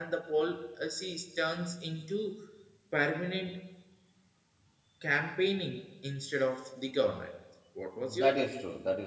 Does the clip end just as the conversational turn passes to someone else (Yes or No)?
Yes